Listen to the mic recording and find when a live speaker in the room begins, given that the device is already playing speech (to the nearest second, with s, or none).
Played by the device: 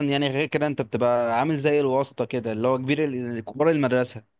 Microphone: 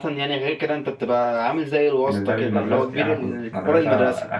2 s